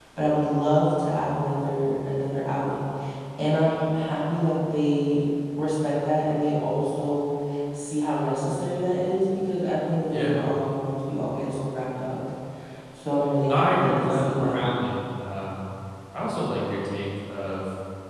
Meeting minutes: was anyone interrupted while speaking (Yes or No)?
Yes